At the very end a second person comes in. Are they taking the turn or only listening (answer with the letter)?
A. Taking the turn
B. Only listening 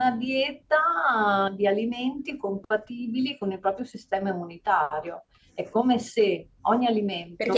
A